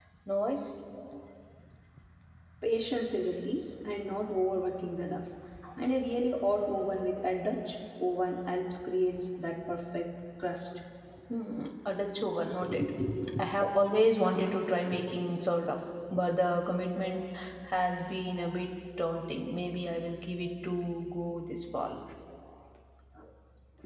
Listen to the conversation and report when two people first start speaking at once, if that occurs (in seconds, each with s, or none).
none